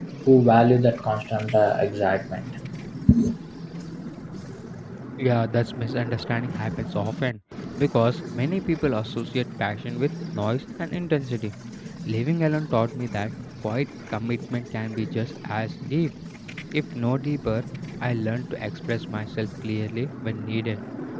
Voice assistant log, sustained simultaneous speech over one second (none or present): none